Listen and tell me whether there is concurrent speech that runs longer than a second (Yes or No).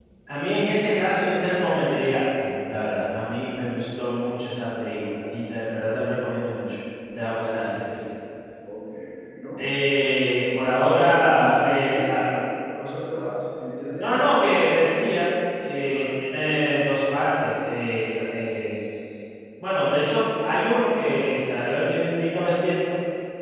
Yes